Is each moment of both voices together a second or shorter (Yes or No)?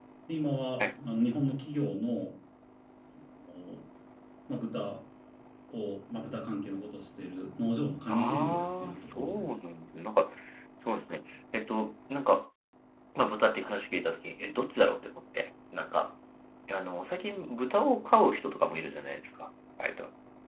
No